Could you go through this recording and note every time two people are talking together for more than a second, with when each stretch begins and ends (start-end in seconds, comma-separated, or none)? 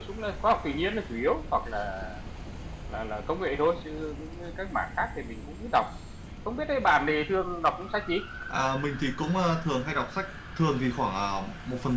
none